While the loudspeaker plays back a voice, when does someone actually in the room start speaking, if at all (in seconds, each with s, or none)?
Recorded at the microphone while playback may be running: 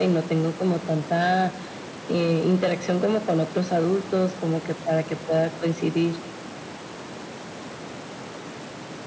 none